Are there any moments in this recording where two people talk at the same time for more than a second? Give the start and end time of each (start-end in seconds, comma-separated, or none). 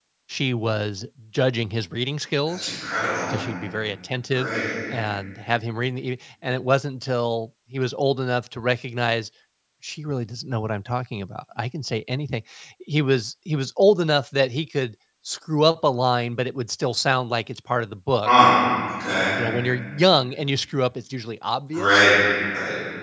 none